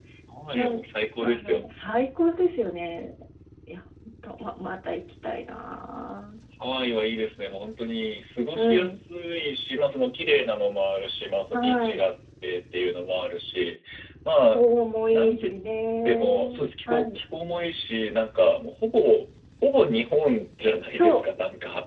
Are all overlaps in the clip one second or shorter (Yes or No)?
Yes